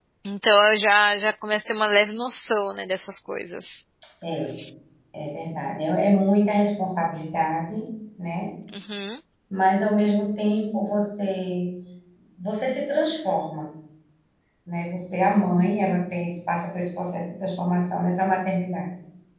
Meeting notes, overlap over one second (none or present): none